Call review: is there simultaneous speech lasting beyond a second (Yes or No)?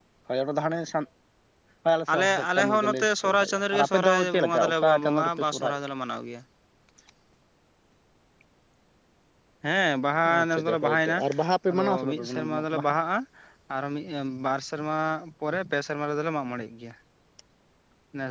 Yes